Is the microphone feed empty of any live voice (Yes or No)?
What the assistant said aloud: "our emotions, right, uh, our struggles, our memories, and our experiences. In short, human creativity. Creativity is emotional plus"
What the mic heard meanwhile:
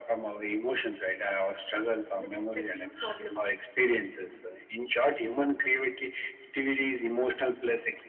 No